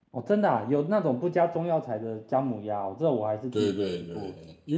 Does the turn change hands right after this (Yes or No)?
Yes